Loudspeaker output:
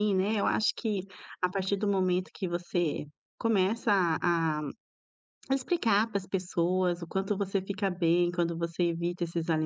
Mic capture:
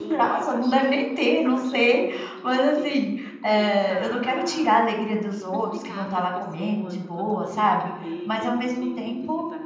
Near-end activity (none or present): present